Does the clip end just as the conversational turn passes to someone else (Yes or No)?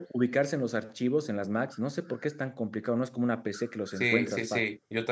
Yes